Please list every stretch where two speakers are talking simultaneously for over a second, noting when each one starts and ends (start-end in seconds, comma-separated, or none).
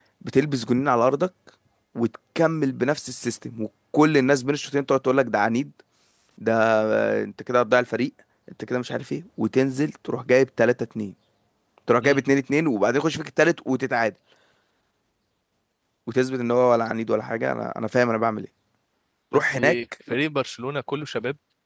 none